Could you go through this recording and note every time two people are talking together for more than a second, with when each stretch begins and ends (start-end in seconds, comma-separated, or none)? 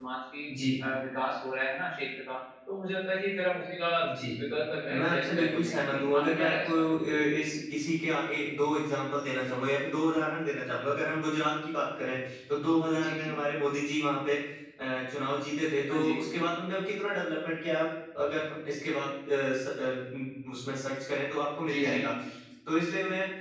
4.9-6.9